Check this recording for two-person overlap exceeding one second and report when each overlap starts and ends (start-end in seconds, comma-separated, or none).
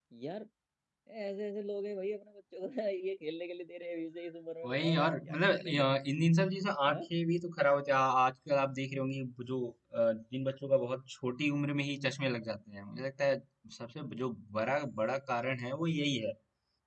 4.7-5.9